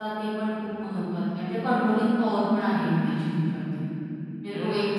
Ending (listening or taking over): taking over